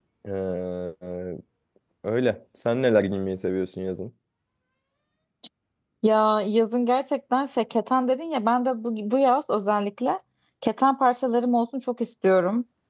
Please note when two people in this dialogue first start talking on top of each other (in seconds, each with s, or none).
none